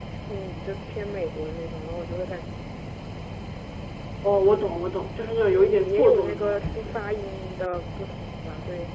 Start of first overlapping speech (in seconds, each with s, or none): 5.4 s